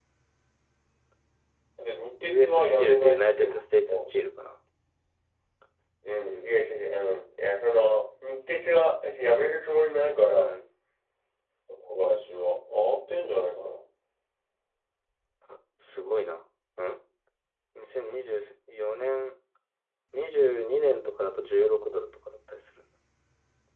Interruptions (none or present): present